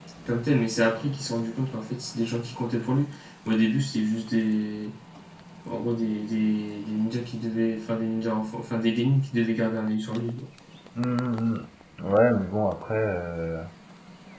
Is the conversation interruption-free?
Yes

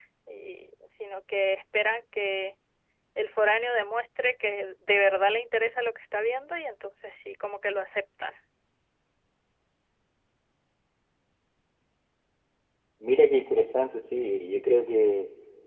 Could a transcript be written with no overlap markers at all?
Yes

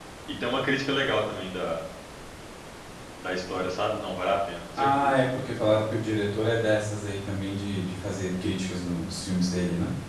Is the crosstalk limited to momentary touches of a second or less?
Yes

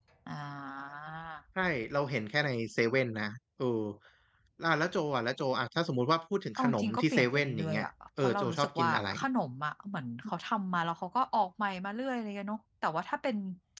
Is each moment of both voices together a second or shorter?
No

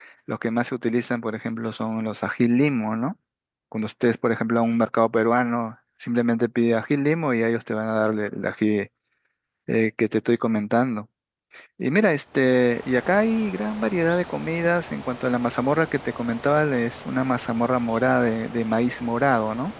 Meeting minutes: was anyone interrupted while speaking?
No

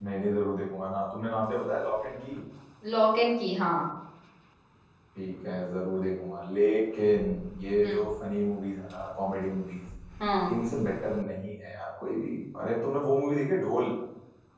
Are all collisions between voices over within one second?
Yes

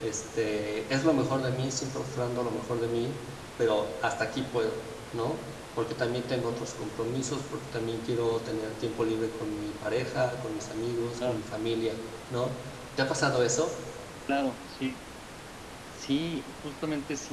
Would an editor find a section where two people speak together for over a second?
No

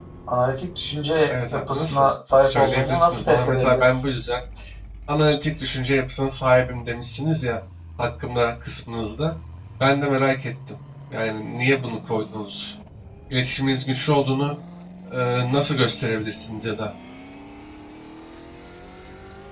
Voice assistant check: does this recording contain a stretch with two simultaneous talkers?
Yes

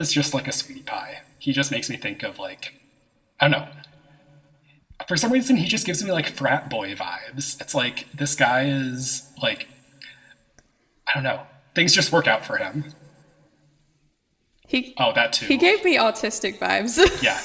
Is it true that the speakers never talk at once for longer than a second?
Yes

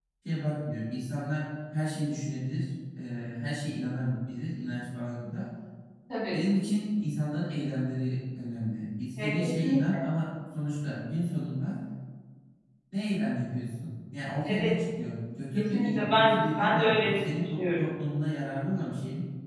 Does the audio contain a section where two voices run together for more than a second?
Yes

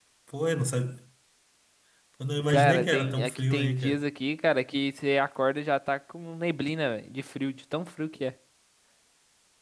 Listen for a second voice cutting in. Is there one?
Yes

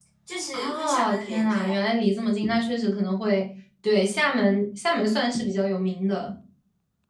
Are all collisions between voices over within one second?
No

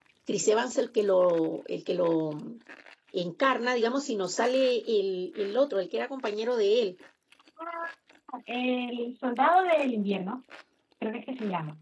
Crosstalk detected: No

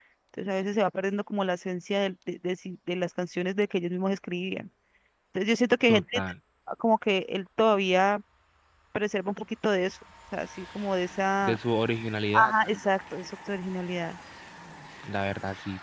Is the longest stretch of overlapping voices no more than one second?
Yes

